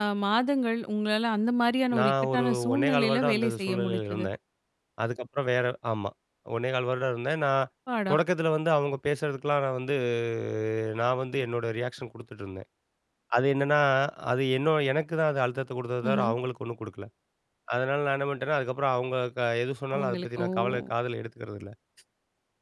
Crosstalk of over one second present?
Yes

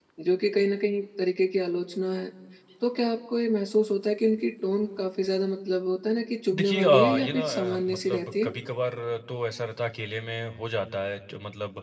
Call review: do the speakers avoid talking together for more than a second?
No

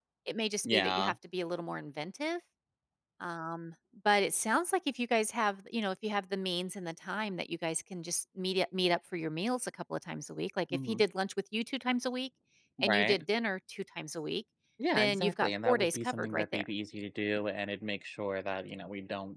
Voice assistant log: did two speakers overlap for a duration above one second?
Yes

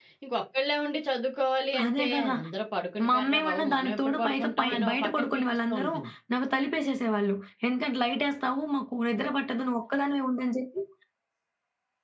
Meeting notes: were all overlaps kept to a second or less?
No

